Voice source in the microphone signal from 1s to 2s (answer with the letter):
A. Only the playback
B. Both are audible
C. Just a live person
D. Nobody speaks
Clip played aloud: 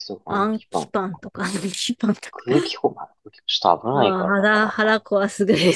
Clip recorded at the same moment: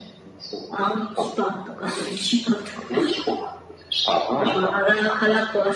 A